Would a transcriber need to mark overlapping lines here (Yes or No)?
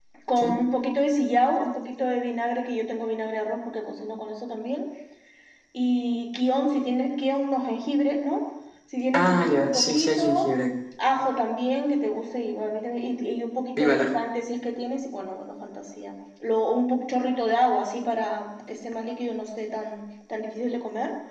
Yes